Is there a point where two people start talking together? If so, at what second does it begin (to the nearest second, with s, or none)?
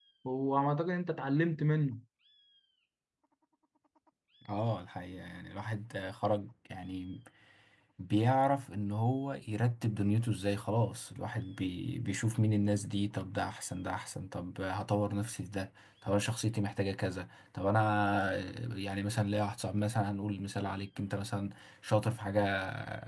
none